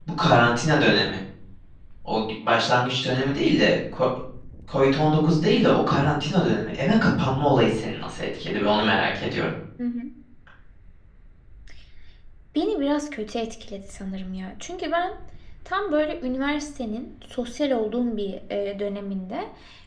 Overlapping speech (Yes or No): No